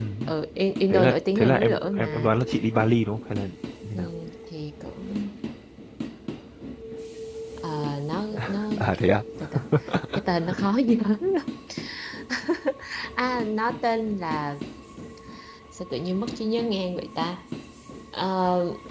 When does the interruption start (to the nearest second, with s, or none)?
1 s